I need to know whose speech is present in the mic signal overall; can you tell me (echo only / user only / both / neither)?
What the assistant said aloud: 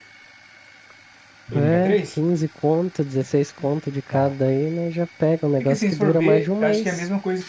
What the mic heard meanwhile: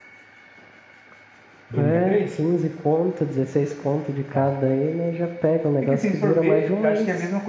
echo only